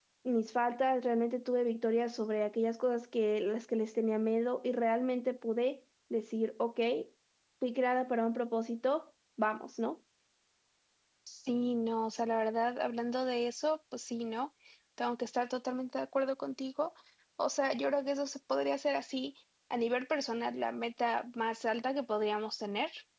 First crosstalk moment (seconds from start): none

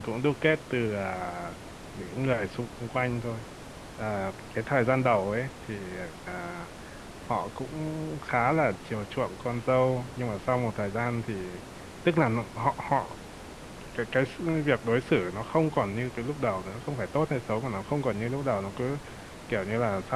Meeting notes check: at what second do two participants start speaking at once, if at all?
none

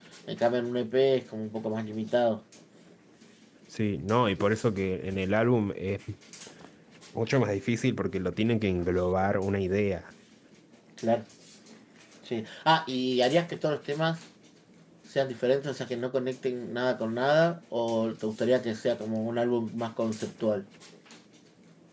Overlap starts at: none

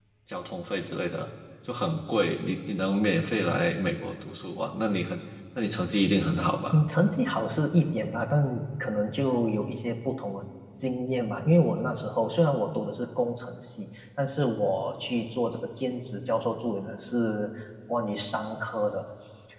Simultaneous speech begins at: none

